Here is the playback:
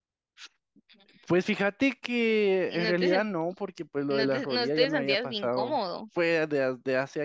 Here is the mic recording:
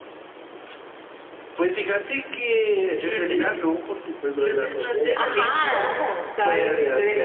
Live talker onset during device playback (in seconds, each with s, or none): 5.1 s